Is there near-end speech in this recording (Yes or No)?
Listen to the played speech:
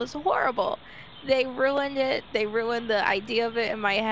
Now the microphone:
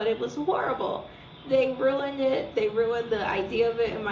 No